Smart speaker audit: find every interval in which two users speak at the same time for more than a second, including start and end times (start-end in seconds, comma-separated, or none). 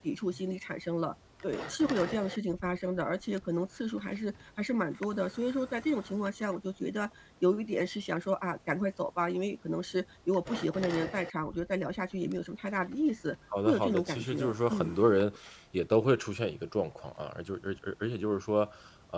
13.7-14.9